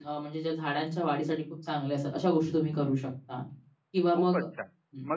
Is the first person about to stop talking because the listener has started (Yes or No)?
Yes